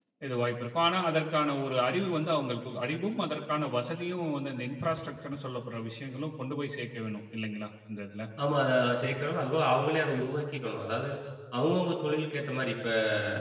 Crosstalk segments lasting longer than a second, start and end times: none

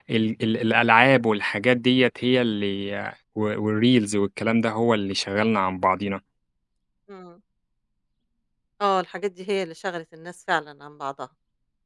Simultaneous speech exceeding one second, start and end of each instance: none

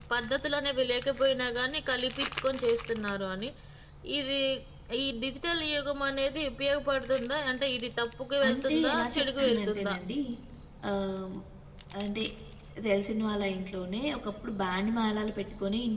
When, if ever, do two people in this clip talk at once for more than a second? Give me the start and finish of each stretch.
8.5-9.9

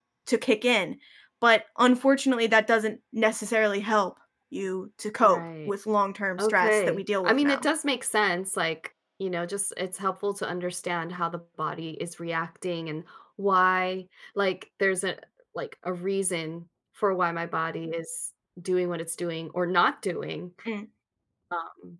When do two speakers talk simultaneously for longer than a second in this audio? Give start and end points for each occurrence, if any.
6.4-7.7

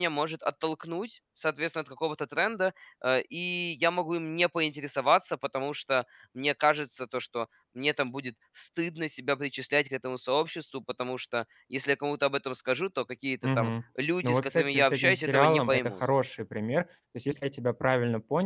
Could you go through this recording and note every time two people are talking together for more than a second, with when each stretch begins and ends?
14.2-15.9

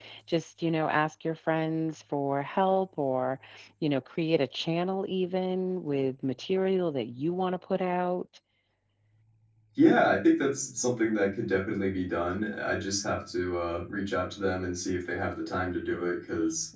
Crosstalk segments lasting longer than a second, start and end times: none

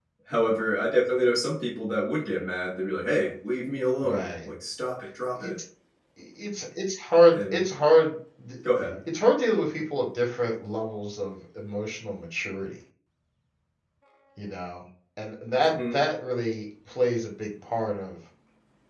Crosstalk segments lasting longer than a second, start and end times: none

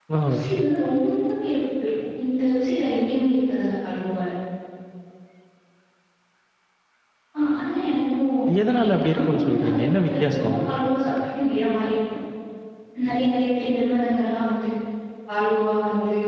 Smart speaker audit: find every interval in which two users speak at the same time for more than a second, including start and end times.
8.7-10.6

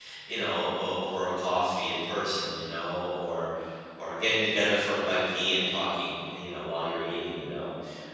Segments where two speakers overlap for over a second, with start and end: none

